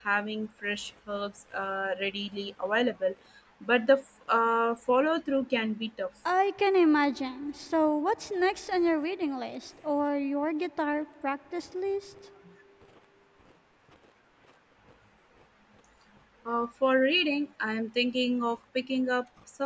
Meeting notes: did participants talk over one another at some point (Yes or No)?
No